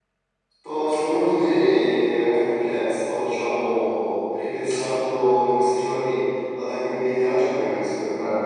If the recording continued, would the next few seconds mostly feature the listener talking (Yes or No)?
No